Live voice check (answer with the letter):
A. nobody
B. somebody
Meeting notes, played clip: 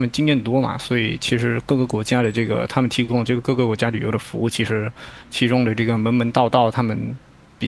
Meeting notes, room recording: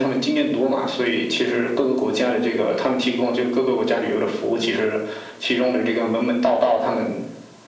A